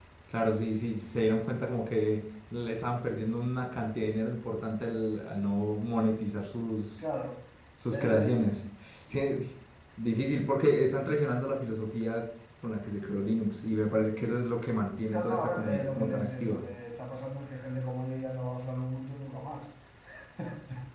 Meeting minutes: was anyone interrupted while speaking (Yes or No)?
Yes